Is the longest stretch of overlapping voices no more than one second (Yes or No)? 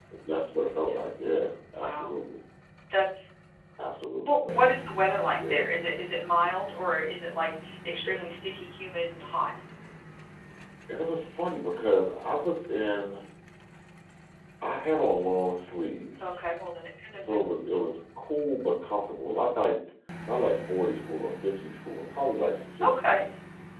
Yes